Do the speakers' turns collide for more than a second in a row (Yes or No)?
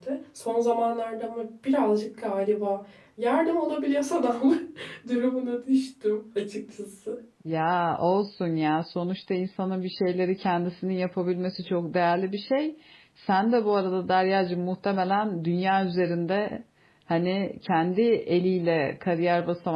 No